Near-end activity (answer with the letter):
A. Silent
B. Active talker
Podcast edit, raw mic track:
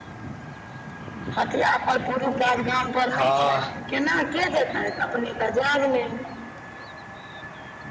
B